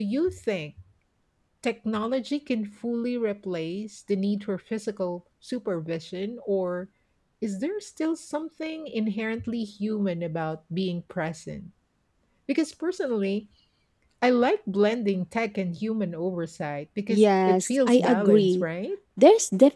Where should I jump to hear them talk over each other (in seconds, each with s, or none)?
17.1 s